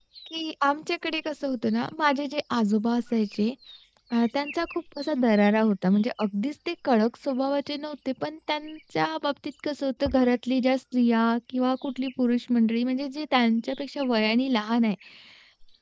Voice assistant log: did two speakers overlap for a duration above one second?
No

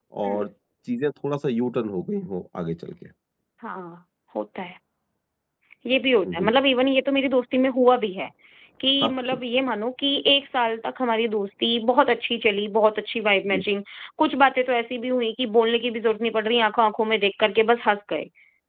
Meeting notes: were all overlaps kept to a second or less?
Yes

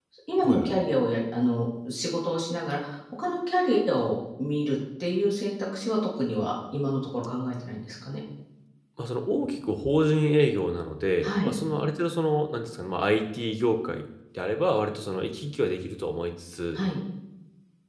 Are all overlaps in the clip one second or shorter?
Yes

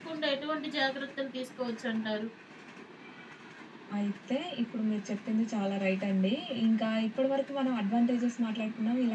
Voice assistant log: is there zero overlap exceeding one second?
Yes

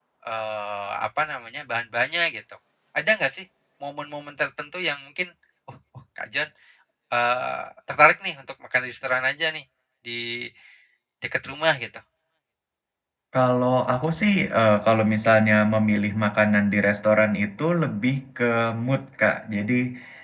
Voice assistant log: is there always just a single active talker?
Yes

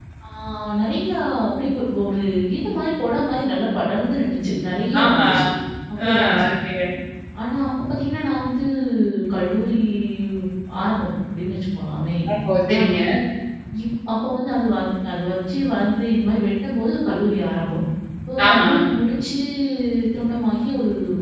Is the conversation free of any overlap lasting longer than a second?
Yes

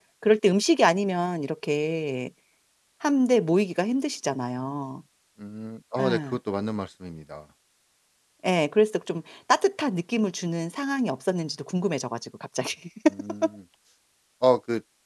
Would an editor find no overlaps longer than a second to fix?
Yes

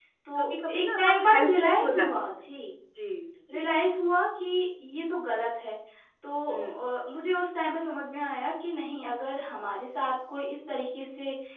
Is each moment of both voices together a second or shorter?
No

